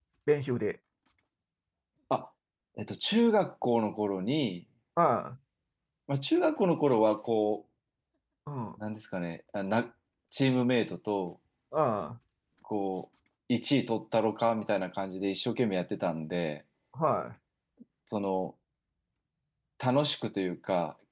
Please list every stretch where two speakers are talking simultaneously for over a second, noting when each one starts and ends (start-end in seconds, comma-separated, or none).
none